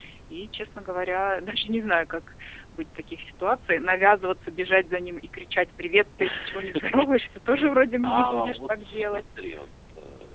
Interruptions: present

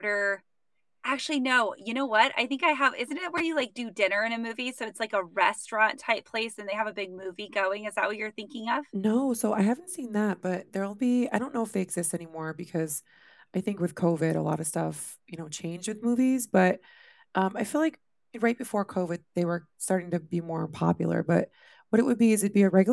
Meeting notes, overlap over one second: none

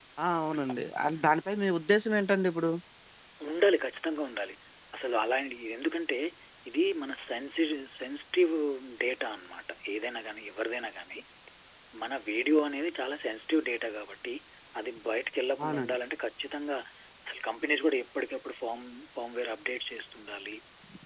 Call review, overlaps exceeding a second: none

